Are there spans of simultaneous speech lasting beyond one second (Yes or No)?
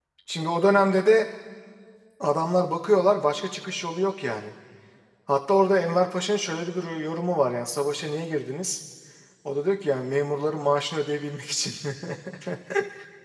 No